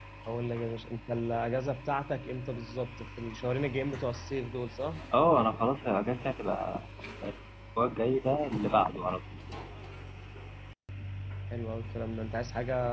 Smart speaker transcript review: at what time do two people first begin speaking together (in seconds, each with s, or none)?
none